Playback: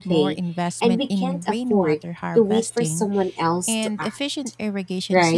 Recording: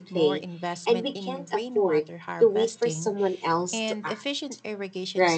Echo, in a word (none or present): present